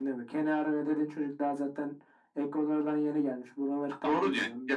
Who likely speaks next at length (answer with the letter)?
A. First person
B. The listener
B